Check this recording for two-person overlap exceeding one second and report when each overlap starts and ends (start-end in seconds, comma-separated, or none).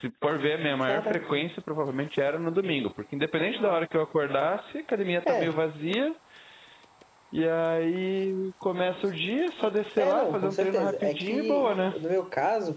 10.0-11.9